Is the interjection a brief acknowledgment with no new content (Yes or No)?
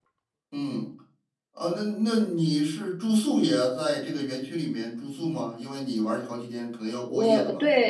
No